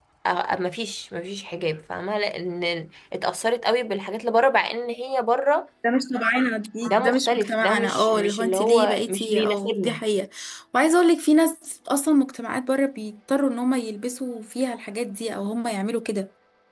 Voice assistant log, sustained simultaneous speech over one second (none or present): present